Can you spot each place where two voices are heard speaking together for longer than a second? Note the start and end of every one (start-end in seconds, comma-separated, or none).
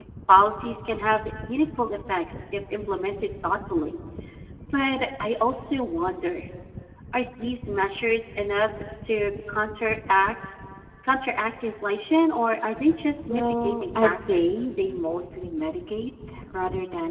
13.3-14.7